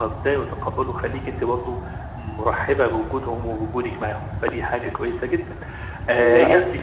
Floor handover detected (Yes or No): No